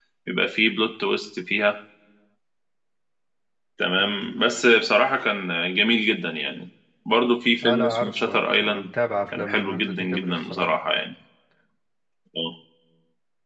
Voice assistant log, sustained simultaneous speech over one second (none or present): present